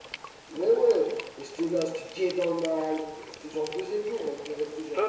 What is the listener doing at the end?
taking over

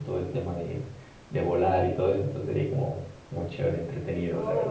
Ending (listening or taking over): taking over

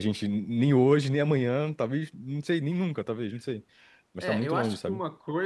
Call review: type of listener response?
taking over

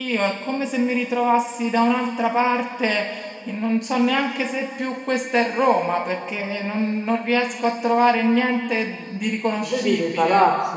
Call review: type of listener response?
taking over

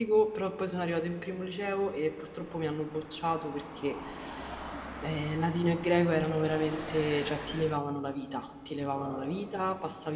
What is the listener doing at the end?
listening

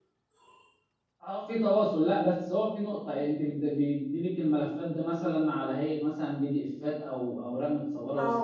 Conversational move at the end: taking over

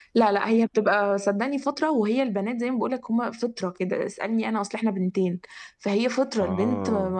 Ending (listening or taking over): listening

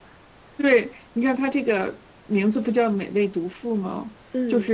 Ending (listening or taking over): listening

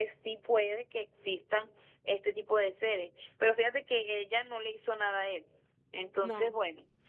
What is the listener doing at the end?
listening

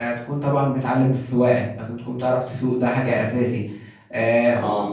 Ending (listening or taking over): listening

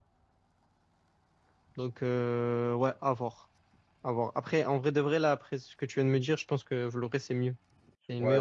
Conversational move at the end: taking over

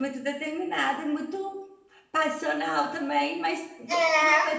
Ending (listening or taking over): taking over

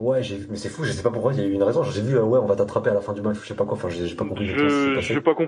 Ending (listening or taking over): taking over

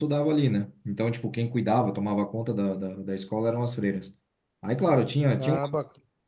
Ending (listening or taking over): listening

